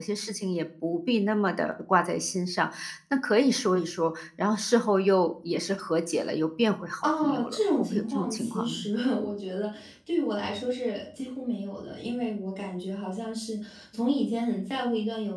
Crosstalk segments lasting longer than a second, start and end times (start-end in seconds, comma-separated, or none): 7.0-8.8